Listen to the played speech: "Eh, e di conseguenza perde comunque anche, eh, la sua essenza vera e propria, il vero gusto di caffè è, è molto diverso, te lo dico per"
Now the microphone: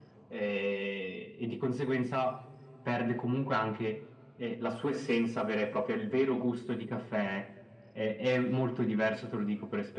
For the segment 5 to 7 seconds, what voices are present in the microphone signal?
echo only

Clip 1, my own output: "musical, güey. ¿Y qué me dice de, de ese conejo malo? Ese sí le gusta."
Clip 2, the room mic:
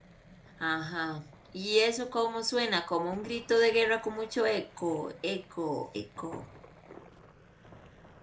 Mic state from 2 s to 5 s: user only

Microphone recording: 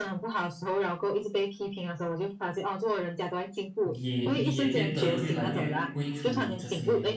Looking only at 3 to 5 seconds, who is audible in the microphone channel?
both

